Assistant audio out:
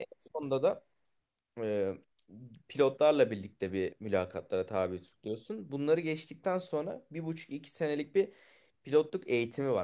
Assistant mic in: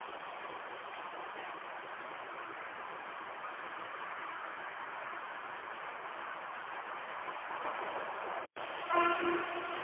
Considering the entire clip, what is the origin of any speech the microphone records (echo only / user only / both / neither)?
neither